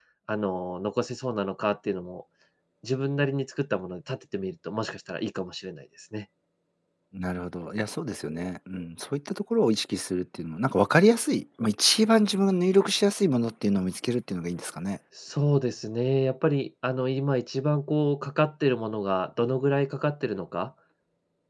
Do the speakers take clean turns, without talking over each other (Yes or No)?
Yes